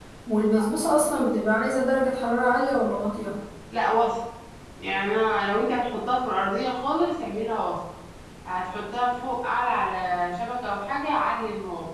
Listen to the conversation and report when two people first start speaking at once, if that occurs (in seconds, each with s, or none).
none